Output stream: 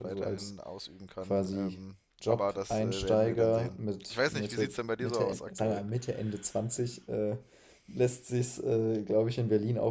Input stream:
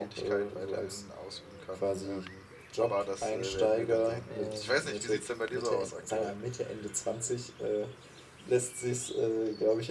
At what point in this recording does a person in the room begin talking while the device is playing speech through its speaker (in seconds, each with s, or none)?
4.3 s